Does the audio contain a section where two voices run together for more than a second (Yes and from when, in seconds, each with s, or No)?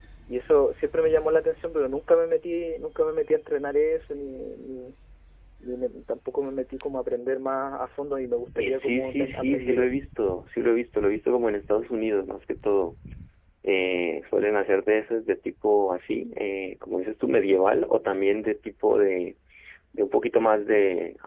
Yes, from 8.6 s